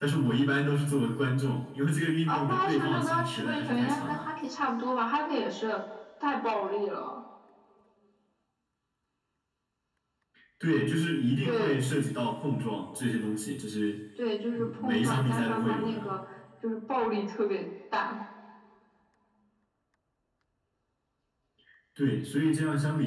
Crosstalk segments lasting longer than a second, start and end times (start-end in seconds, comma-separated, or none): 2.3-4.3, 14.6-16.1